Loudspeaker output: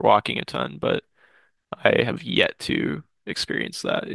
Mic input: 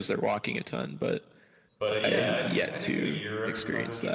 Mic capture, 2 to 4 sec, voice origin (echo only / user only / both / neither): both